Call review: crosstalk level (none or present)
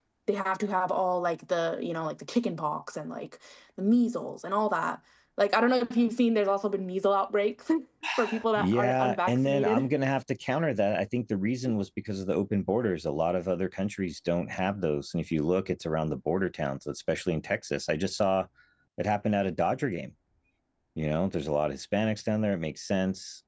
present